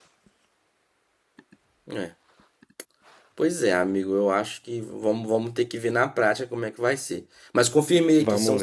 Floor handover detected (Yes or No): No